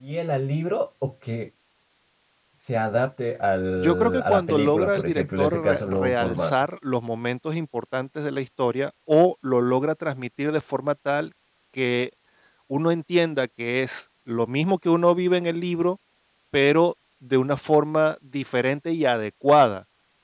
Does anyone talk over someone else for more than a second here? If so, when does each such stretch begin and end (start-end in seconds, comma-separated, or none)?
3.8-6.5